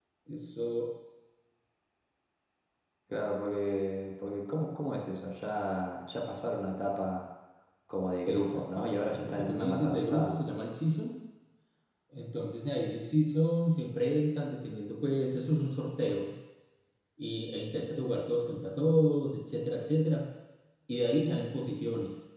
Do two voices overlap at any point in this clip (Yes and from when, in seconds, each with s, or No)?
Yes, from 8.2 s